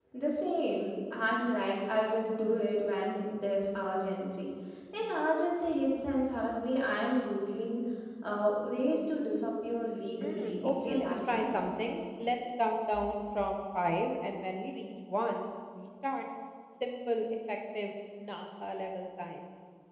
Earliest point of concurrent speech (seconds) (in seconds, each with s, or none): 10.2 s